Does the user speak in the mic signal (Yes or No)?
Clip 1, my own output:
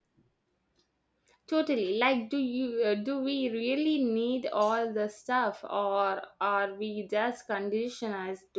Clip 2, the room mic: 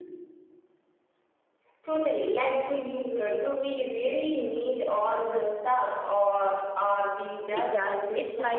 Yes